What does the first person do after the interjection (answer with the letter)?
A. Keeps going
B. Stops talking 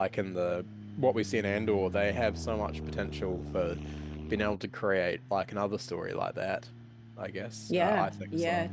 B